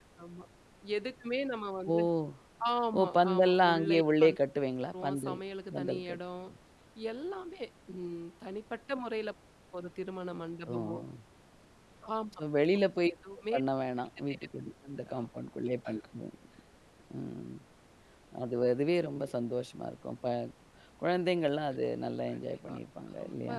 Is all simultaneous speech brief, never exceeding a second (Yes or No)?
No